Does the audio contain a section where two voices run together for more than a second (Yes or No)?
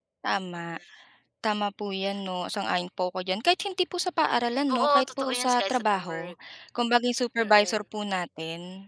Yes